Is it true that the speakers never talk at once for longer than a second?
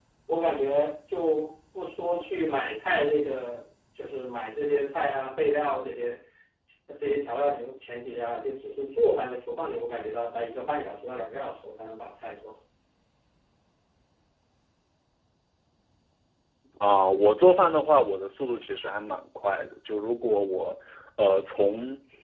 Yes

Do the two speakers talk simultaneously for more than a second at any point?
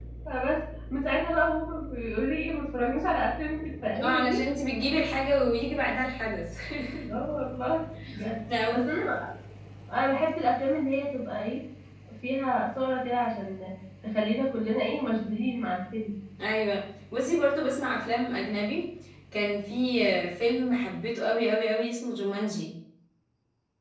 No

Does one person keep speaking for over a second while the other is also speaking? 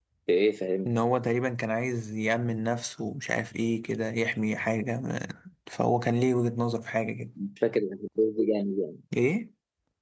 No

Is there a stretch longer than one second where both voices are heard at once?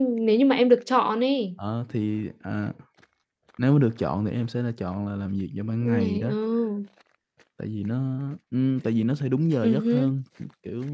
No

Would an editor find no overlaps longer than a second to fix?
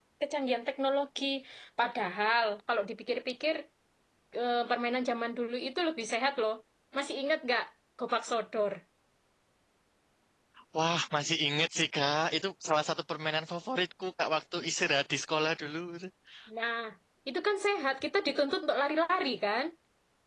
Yes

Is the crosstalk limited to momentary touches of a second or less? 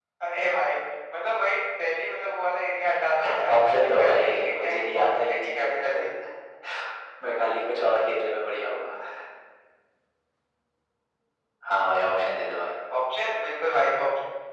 No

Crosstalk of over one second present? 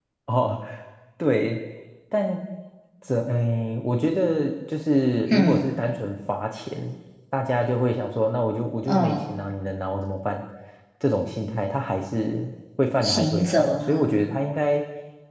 Yes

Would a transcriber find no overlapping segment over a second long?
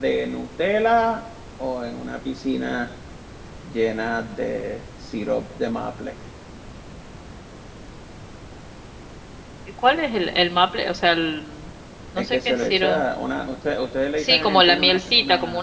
No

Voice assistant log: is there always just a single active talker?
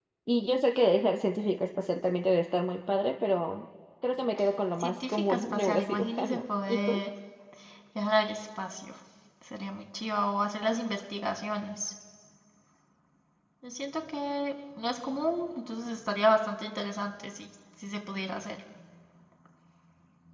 No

